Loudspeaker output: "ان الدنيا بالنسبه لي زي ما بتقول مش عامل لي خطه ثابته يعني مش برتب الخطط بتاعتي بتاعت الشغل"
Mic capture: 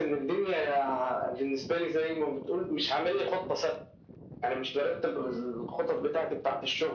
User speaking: No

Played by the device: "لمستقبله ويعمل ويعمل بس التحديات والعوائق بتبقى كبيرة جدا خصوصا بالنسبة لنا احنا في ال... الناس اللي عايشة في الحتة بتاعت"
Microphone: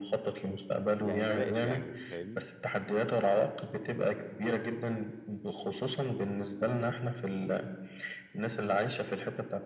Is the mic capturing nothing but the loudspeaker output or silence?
No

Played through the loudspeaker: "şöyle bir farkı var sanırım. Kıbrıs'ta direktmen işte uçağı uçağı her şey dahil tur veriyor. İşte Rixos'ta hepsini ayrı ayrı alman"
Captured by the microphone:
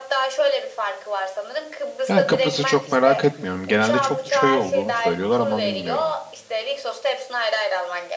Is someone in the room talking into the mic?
Yes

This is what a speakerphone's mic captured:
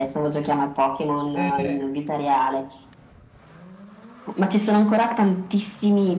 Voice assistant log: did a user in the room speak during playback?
Yes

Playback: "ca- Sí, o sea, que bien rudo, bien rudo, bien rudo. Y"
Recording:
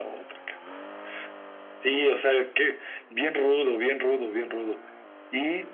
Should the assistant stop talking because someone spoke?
No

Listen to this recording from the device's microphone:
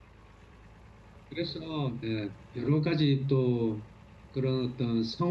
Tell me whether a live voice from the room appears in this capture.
Yes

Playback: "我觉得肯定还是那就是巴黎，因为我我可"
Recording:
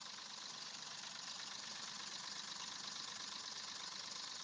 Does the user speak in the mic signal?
No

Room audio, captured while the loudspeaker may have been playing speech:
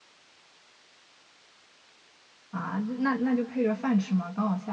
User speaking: Yes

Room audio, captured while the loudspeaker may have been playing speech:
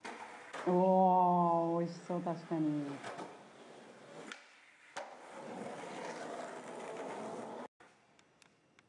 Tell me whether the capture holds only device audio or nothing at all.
No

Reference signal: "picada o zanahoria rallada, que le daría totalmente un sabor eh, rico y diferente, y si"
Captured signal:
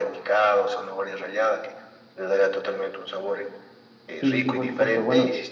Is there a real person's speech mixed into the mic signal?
Yes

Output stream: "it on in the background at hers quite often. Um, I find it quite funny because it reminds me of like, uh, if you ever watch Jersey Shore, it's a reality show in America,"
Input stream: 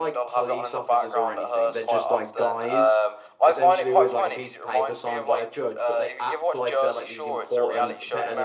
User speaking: Yes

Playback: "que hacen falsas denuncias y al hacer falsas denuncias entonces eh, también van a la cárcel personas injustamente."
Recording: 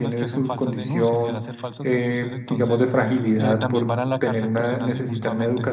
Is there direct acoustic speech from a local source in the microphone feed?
Yes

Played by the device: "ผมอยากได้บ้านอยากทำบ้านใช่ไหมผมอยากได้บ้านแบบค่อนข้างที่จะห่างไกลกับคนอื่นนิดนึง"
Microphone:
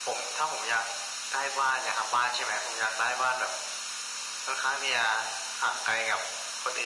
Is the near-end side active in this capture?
No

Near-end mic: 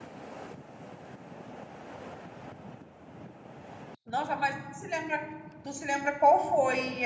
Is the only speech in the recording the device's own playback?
No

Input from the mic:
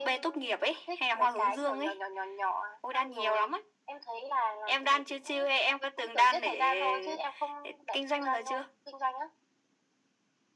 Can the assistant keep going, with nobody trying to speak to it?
Yes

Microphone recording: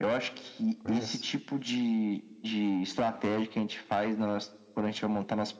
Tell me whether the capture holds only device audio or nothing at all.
No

